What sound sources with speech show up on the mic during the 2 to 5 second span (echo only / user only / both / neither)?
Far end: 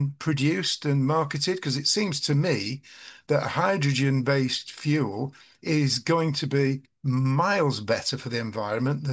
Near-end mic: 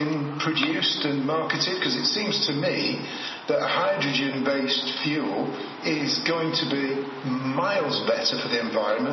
echo only